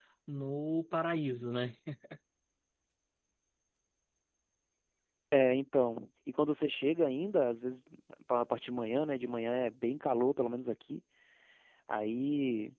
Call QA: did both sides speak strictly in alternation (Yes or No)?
Yes